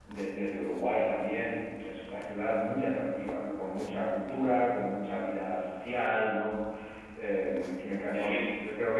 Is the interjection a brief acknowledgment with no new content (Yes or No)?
Yes